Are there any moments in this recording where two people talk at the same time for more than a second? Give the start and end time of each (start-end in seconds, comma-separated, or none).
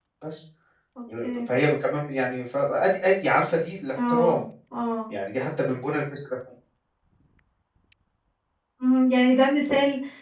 none